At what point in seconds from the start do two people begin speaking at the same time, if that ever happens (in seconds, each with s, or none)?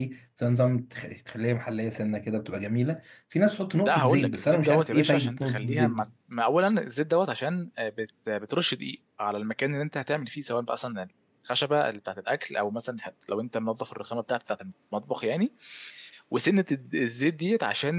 3.8 s